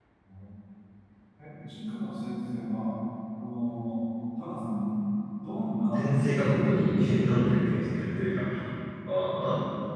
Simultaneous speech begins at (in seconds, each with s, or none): 5.9 s